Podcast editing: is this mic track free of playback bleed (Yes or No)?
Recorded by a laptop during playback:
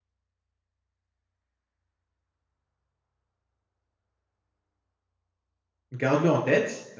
Yes